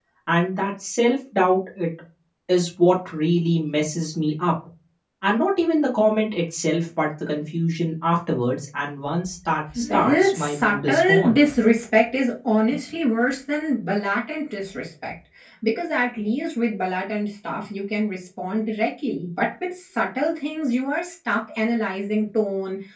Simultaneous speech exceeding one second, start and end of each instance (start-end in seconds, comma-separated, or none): 9.9-11.4